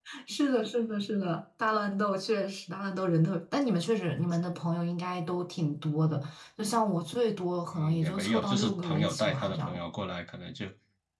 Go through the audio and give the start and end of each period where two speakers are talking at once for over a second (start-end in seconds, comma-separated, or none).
7.7-9.8